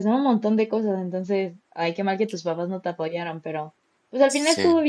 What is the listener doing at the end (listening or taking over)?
listening